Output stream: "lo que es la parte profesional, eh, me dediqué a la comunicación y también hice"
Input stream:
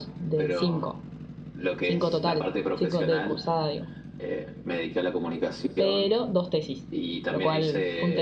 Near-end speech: present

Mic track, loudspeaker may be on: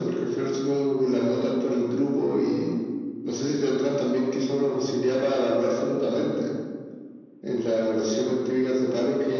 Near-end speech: none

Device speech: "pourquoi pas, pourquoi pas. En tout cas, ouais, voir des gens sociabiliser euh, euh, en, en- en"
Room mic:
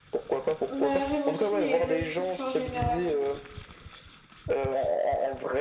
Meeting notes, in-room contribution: present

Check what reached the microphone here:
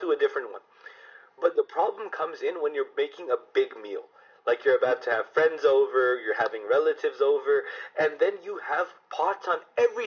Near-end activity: none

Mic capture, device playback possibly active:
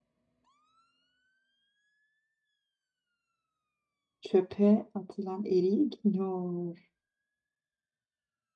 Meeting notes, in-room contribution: present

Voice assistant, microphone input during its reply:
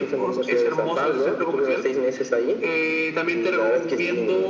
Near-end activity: none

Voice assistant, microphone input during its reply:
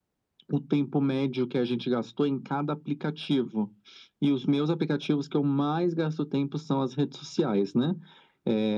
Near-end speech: none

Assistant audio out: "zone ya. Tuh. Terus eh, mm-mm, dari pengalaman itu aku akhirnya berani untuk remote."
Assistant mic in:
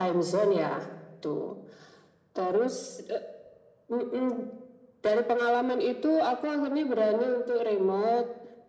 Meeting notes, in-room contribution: none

